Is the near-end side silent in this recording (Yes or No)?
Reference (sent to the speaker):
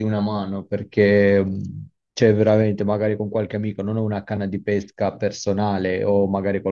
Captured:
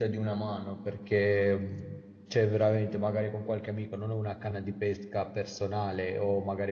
Yes